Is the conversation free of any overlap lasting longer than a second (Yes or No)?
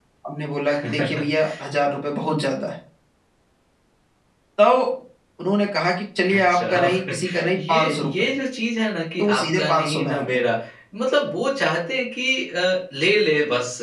No